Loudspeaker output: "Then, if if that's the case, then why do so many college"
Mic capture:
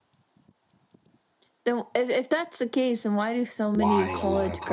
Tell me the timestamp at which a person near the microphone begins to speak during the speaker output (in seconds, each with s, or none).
3.7 s